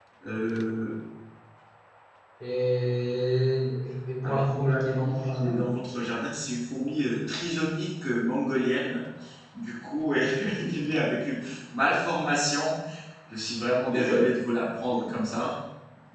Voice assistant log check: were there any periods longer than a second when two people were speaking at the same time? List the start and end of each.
4.2-5.7

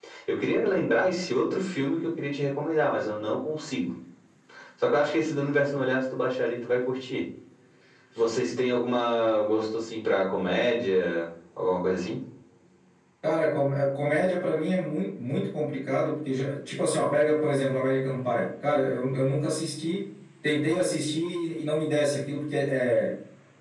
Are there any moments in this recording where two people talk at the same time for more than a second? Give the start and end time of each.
none

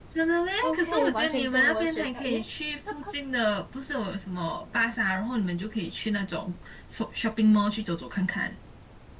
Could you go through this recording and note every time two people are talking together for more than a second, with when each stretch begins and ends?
0.6-2.5

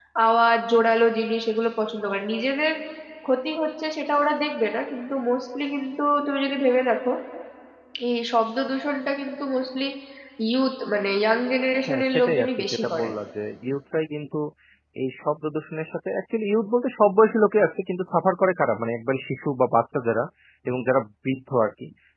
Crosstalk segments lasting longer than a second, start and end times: 11.9-13.1

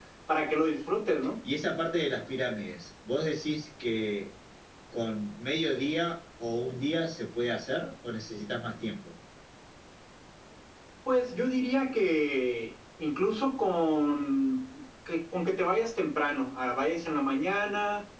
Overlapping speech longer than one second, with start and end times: none

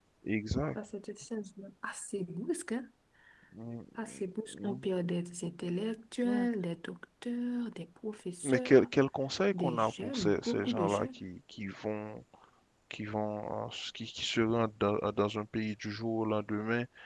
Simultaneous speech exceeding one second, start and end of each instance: 9.5-11.2

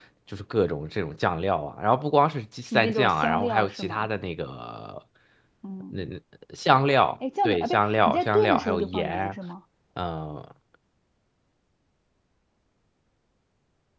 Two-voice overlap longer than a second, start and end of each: 2.6-4.1, 7.4-9.4

